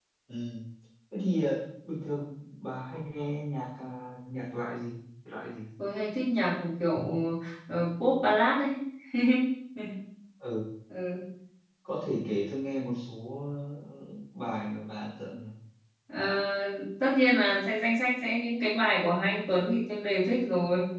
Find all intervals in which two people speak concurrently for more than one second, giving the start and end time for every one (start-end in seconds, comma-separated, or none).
none